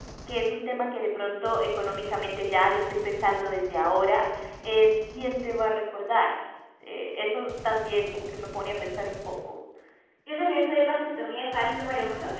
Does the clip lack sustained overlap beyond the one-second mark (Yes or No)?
Yes